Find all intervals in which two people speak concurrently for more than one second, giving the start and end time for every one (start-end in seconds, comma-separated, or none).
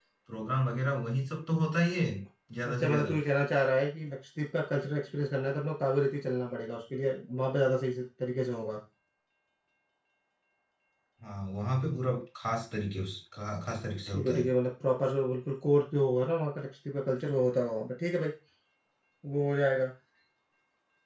none